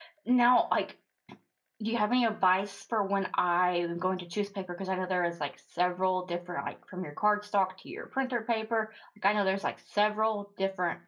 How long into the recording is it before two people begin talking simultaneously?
none

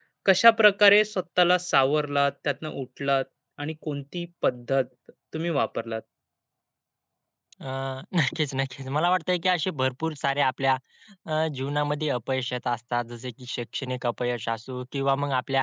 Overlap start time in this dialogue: none

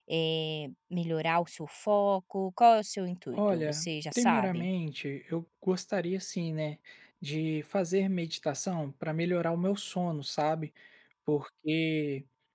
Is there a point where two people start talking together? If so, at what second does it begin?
3.3 s

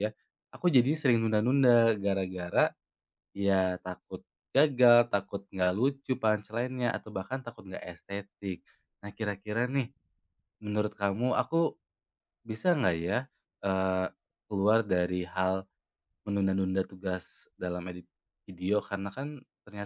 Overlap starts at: none

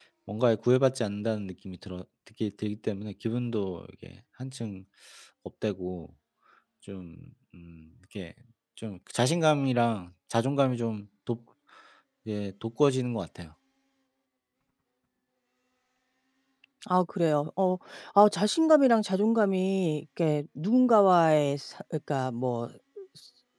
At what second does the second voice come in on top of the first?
none

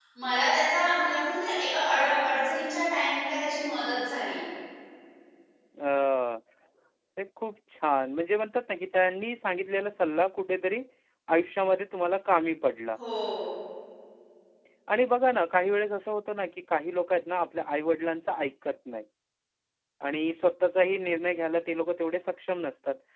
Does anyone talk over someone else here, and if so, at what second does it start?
none

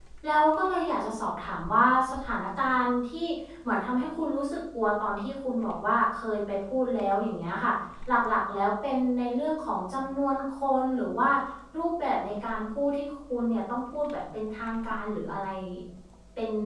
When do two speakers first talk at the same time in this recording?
none

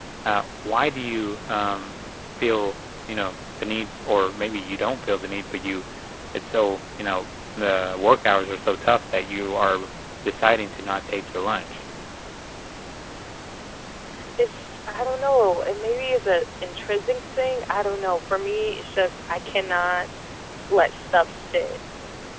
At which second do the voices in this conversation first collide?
none

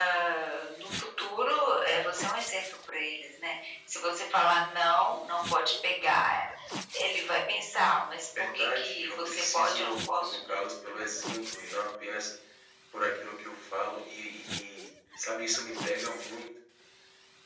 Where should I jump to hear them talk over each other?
8.4 s

